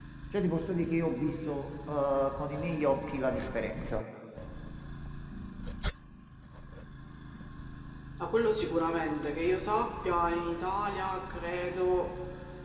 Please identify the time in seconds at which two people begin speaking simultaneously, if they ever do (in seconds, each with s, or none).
none